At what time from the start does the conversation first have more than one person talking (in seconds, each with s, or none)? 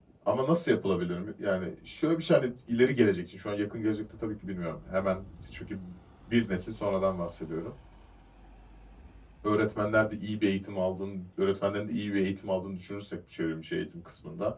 none